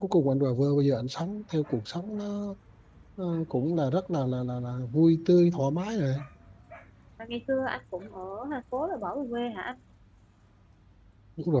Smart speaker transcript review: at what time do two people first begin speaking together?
none

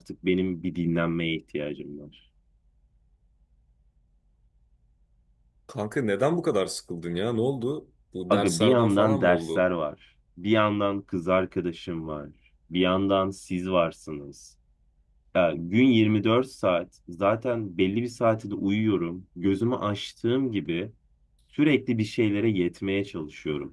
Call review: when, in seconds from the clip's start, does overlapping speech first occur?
8 s

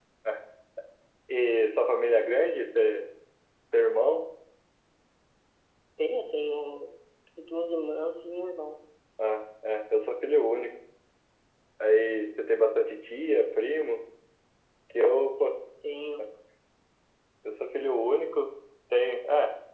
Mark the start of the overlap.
none

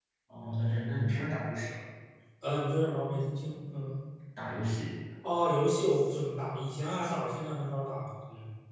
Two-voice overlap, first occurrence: none

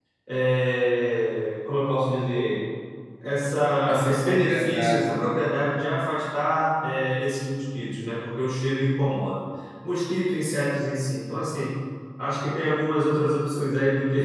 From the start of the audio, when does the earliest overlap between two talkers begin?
4 s

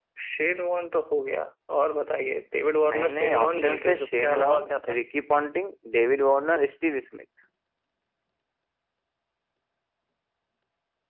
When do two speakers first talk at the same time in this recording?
3 s

